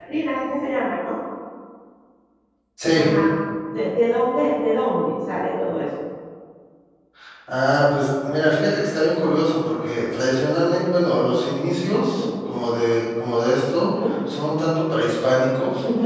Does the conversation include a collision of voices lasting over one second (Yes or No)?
No